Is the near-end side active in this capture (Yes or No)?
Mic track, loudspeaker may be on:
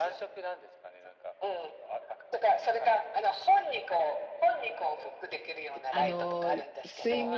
Yes